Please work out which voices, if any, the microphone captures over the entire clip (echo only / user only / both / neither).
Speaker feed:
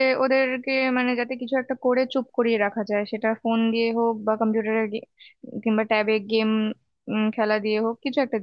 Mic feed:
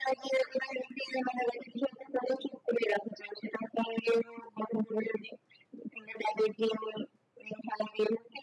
echo only